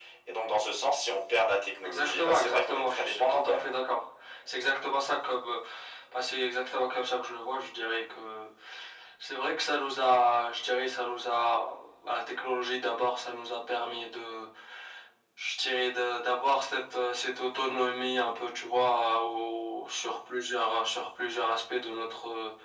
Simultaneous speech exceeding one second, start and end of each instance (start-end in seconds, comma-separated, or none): 1.8-3.8